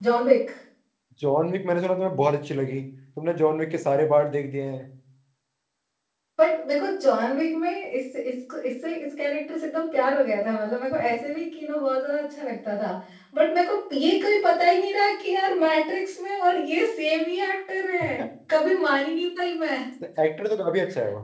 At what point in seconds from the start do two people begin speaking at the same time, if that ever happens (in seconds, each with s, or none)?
none